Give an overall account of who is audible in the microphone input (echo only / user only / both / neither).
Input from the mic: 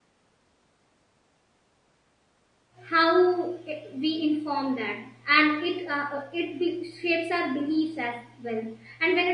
user only